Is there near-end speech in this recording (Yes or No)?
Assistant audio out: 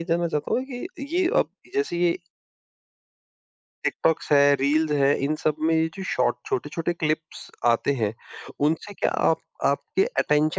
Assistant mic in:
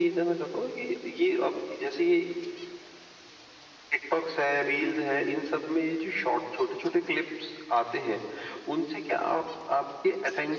No